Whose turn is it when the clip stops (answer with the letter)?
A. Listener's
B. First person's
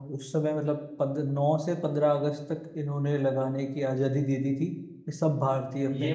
B